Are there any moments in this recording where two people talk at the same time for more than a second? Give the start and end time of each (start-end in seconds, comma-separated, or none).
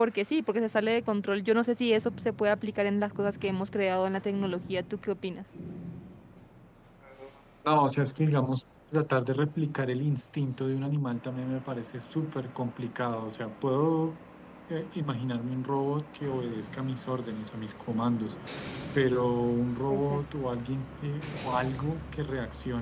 none